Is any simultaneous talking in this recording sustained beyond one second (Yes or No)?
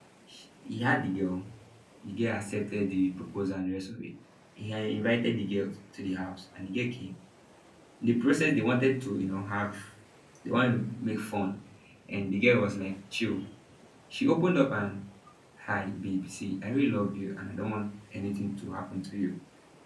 No